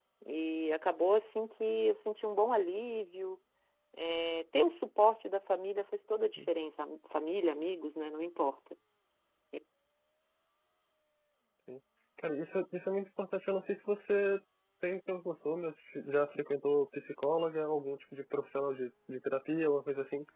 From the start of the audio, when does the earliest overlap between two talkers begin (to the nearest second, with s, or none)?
none